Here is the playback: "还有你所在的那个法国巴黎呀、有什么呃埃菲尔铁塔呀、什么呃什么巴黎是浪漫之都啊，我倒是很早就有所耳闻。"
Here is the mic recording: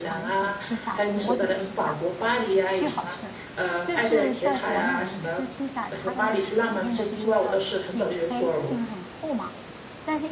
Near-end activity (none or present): present